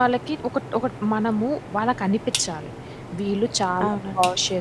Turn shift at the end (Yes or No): No